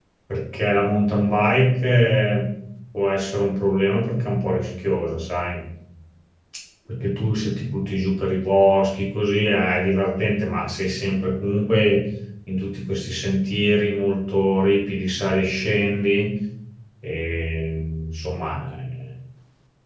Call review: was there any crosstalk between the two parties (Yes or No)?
No